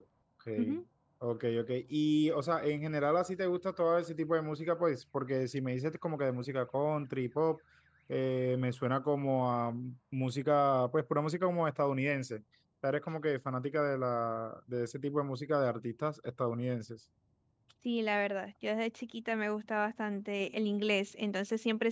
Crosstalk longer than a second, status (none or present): none